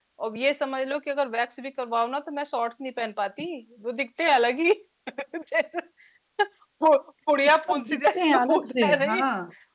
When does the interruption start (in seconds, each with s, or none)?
7.4 s